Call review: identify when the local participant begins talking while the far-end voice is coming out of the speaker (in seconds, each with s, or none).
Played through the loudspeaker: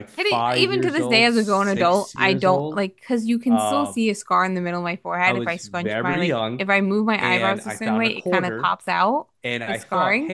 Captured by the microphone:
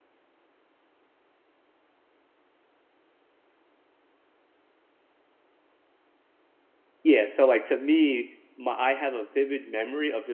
7.0 s